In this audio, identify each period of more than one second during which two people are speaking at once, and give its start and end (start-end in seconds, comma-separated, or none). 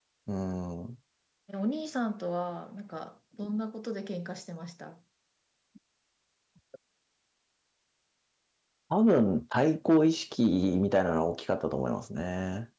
none